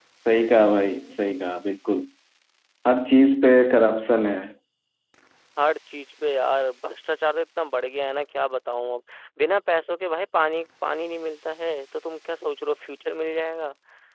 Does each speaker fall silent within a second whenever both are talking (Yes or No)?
Yes